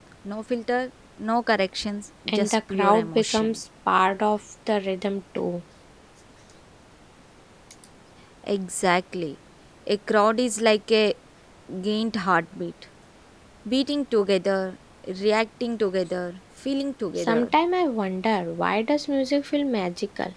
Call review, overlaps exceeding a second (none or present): present